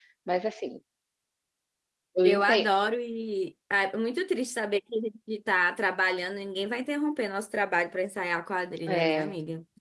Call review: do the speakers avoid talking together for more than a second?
Yes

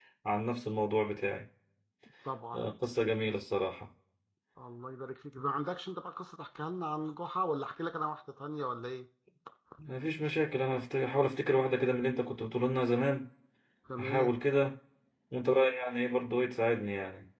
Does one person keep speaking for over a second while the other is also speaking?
No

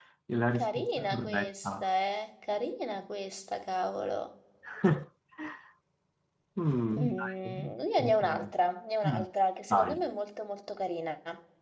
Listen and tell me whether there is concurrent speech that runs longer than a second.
Yes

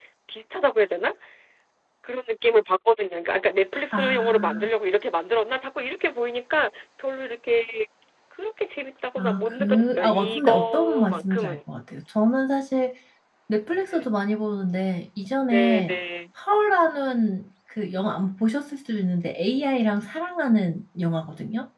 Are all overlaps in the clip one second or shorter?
No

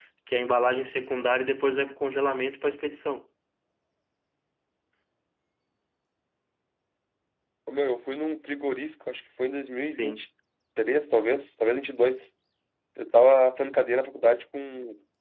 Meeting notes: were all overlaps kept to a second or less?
Yes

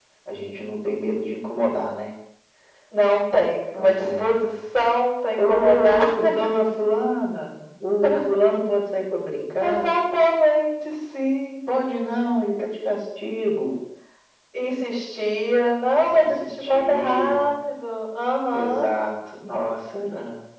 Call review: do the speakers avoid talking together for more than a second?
No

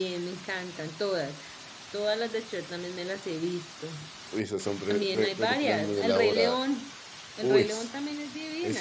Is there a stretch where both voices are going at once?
Yes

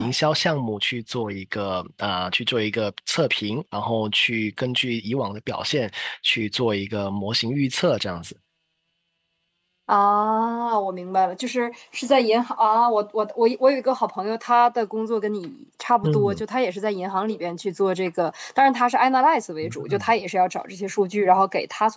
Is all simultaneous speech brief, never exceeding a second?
Yes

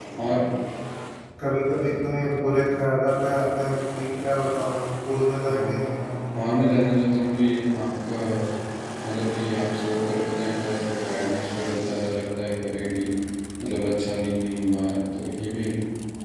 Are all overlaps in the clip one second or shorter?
Yes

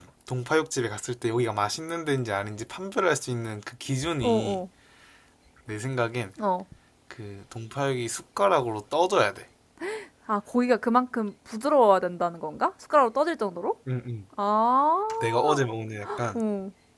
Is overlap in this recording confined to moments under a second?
Yes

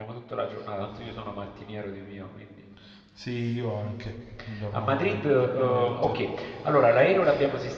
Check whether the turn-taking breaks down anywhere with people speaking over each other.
Yes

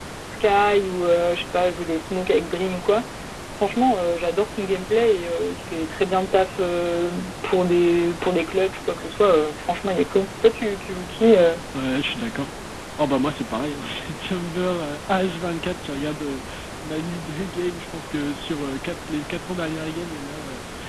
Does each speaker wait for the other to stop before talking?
Yes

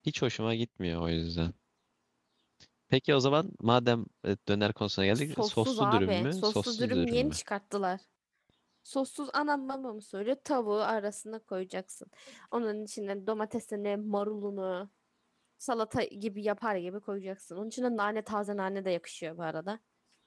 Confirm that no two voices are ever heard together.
No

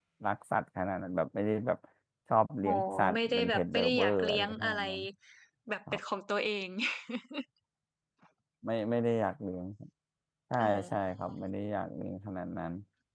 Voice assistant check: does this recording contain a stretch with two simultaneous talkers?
Yes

